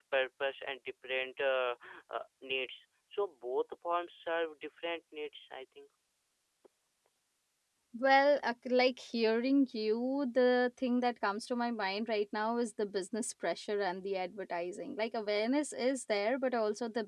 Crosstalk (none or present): none